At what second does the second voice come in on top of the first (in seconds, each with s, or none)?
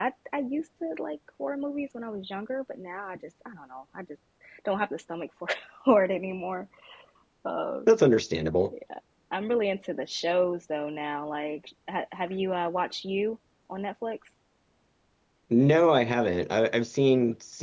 none